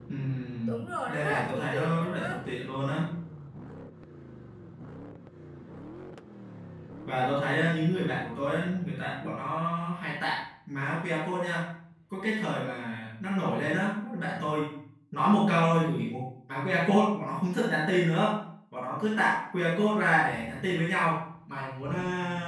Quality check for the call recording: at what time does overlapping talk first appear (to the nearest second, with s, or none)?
1 s